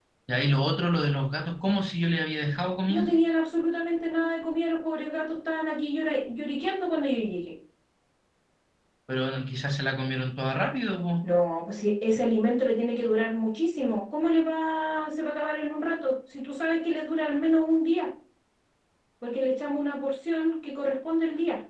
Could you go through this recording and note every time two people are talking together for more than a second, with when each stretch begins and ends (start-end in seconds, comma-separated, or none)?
none